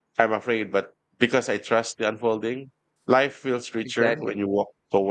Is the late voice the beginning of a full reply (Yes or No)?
No